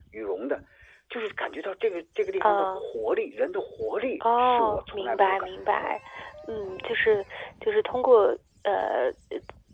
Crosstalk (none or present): present